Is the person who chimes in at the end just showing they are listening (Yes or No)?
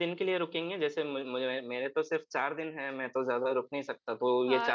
No